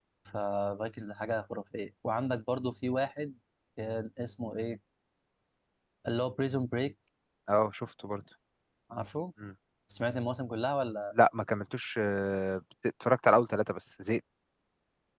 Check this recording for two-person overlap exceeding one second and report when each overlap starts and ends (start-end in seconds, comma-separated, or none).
none